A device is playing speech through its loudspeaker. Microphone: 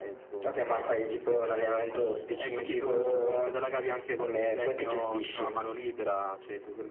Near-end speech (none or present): present